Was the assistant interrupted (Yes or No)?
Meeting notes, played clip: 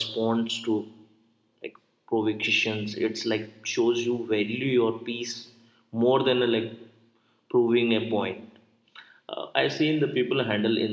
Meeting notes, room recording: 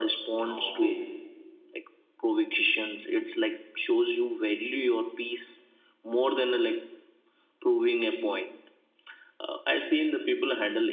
Yes